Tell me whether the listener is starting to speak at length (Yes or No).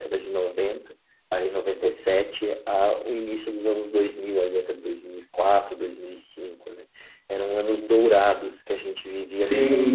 Yes